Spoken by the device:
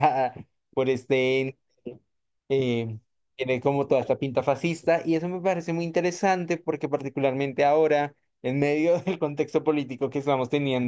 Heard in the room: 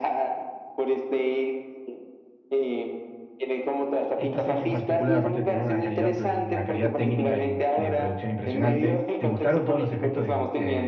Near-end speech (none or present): present